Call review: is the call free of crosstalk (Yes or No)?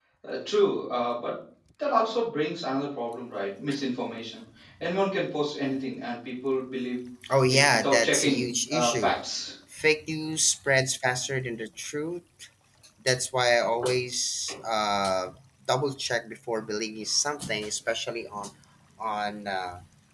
No